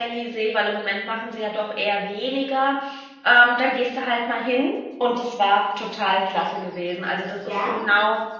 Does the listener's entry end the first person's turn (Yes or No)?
No